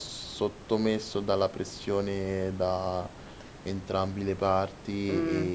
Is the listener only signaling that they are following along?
No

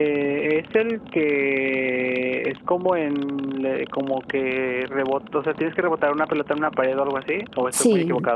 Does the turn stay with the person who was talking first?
No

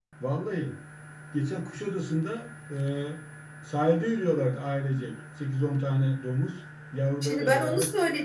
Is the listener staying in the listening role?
No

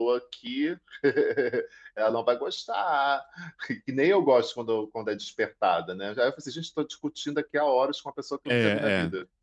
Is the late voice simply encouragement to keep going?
No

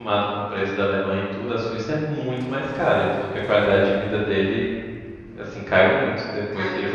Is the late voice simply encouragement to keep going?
Yes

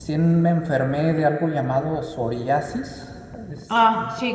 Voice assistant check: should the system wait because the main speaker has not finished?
No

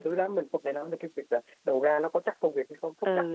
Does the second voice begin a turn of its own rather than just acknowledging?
Yes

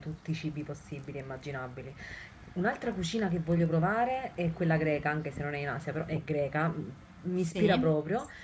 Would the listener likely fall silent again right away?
Yes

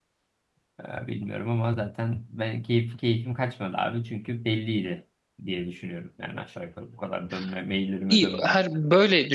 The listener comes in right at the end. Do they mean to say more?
Yes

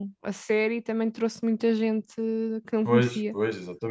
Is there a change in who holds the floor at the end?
Yes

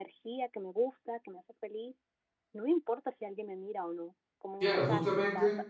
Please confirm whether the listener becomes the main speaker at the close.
Yes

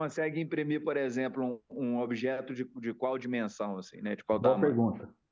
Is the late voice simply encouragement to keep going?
No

